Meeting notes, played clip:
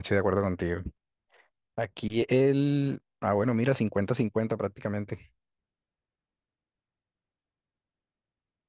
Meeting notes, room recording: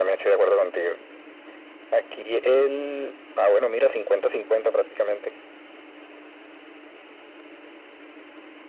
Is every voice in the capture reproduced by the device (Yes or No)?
Yes